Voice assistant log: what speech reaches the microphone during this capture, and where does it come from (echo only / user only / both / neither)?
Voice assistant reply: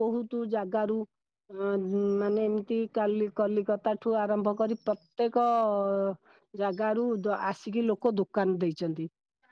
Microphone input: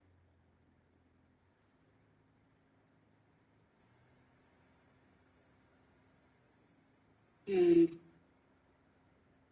user only